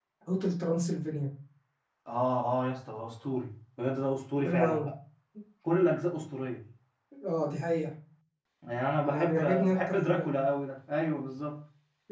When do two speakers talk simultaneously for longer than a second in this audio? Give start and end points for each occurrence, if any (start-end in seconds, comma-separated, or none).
9.0-10.4